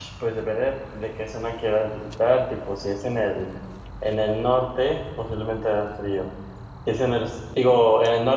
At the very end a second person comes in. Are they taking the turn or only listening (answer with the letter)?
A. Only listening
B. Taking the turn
A